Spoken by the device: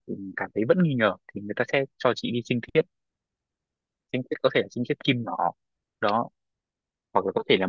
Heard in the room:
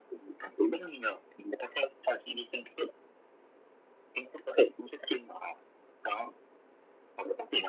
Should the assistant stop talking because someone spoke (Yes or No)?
No